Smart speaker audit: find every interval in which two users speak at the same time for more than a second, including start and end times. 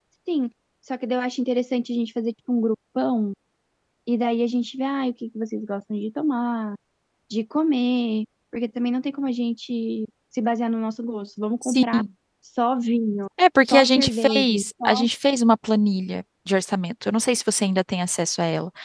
13.7-15.0

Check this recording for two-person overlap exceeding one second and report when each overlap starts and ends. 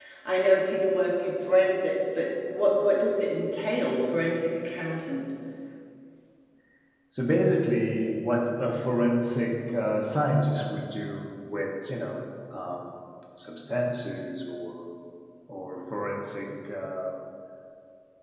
none

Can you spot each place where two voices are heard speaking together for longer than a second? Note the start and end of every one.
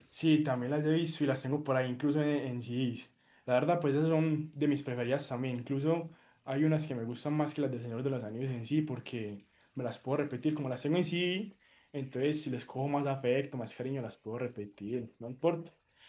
none

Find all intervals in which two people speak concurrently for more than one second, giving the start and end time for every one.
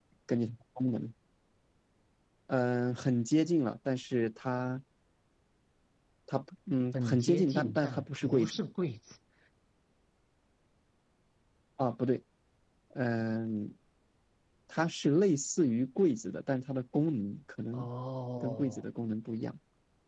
7.0-8.6

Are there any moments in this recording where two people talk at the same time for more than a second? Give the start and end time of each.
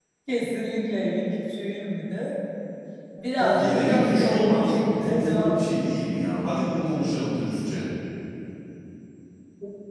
3.4-5.6

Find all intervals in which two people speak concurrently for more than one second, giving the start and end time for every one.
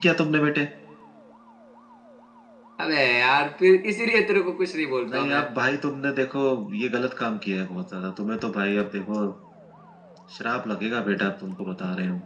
none

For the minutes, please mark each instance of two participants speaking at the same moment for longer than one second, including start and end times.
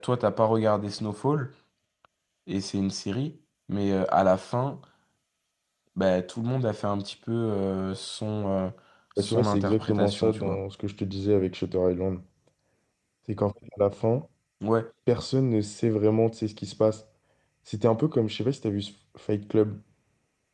9.2-10.6

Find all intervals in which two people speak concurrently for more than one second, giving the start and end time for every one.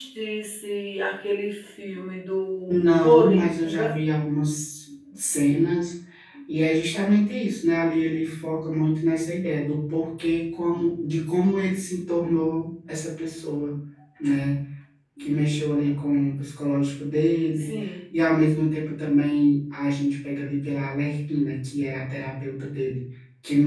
2.7-3.9

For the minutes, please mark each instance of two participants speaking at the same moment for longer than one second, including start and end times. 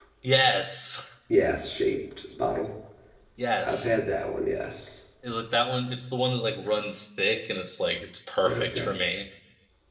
none

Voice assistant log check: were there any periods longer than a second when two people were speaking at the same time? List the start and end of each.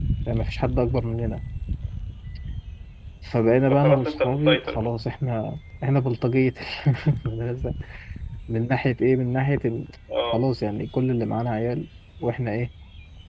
3.7-4.9

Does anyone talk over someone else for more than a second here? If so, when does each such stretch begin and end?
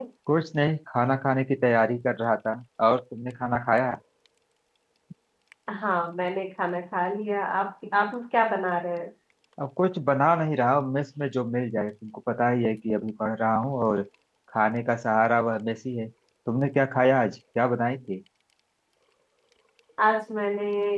none

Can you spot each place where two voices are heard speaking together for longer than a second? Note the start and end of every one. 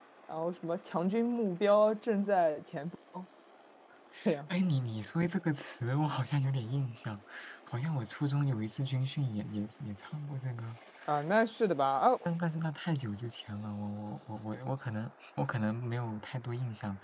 none

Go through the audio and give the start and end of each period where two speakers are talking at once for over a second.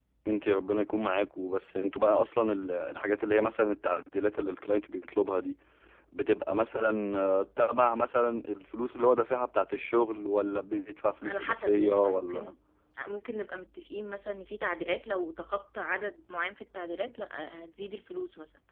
11.3-12.5

